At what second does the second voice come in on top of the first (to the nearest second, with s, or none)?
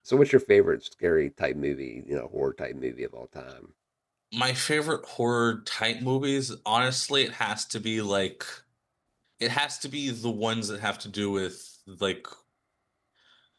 none